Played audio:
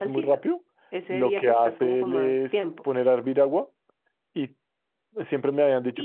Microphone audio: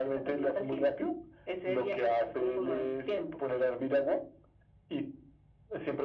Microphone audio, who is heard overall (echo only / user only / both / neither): echo only